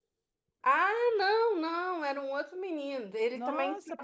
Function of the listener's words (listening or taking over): taking over